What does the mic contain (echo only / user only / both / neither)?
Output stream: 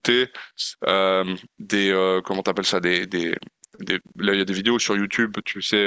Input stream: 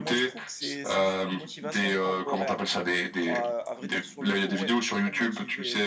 both